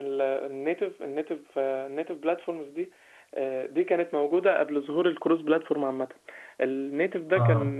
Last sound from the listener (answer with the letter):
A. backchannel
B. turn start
A